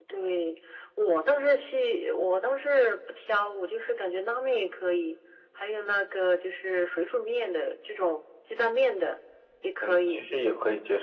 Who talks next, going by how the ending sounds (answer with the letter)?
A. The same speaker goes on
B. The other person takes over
B